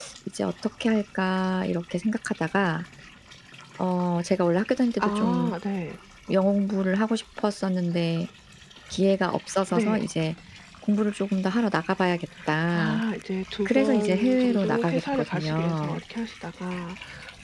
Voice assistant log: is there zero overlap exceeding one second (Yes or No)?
No